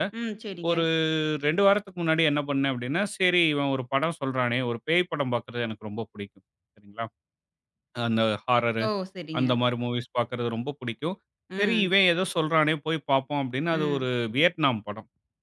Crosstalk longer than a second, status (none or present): none